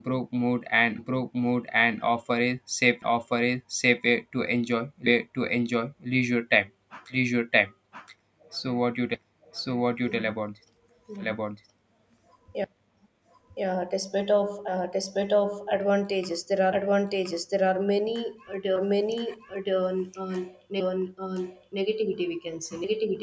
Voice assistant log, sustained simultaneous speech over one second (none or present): none